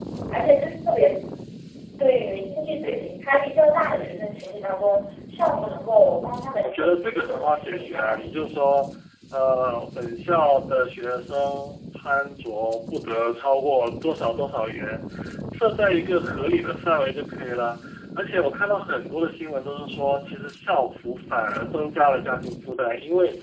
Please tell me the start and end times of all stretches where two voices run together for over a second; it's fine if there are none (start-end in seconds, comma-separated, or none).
6.6-8.3